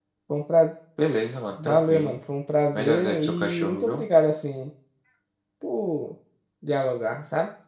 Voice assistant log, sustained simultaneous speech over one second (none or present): present